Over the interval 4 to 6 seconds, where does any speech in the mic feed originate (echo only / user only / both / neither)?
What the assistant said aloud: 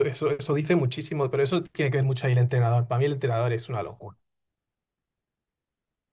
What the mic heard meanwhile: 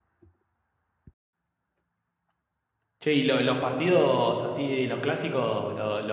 user only